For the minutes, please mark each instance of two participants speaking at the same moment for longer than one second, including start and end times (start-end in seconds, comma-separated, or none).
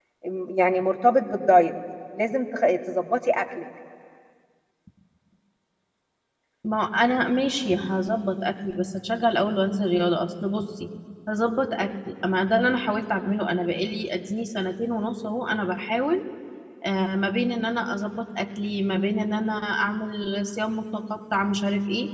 none